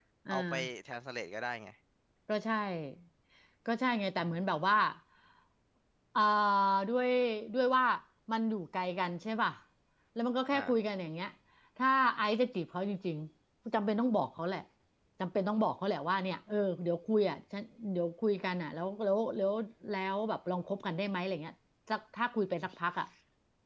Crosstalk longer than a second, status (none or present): none